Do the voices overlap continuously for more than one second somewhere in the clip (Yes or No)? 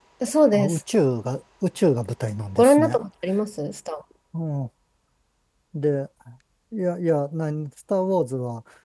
No